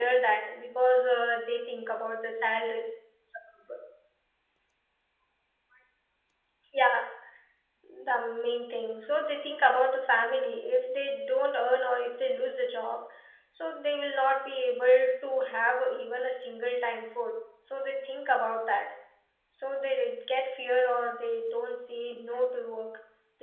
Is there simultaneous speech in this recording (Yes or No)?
No